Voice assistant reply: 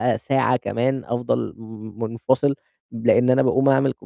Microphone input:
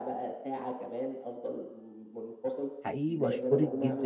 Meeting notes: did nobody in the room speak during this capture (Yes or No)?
No